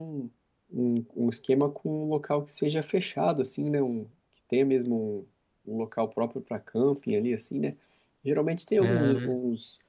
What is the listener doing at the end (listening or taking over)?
listening